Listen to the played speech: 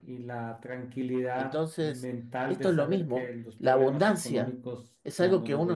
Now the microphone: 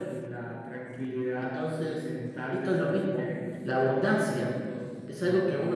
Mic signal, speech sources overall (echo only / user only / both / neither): echo only